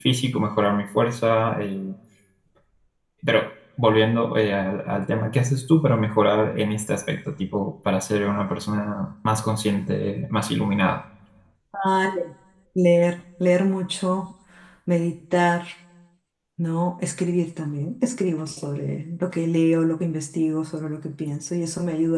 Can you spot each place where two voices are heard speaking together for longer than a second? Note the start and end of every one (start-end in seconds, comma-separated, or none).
none